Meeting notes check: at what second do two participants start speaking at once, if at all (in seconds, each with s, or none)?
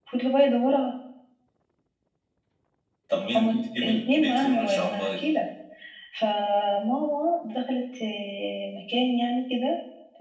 3.3 s